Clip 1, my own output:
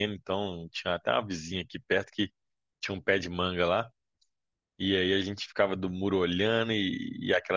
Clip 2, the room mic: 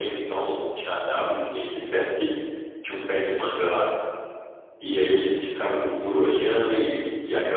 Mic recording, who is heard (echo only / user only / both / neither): both